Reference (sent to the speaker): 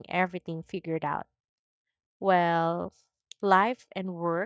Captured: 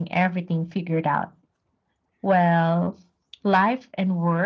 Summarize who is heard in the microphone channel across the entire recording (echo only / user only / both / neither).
echo only